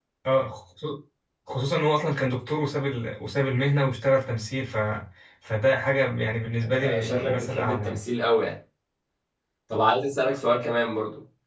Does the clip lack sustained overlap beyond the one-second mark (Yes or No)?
No